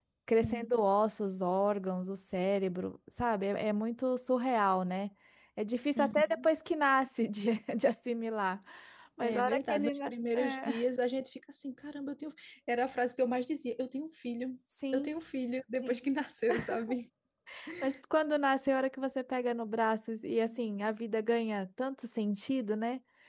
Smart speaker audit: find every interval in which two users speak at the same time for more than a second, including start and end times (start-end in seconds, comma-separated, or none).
9.2-10.8